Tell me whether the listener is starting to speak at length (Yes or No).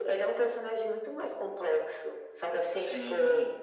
No